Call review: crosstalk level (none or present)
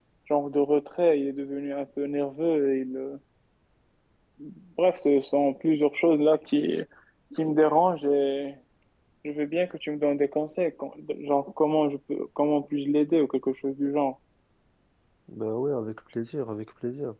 none